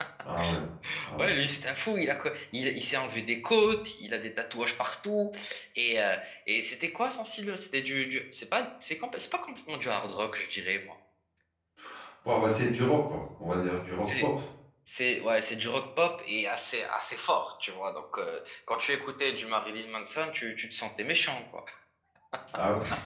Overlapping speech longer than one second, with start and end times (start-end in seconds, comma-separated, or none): none